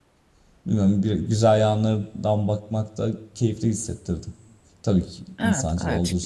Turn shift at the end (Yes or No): Yes